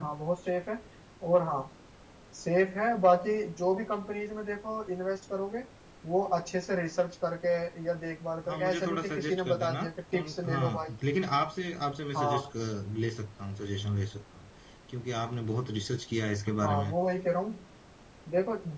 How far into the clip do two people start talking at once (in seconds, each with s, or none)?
8.5 s